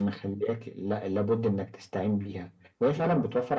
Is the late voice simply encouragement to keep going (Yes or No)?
Yes